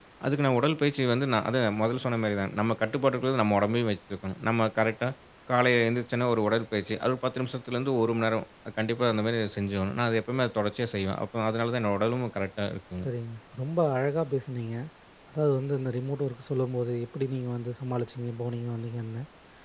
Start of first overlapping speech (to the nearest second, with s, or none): none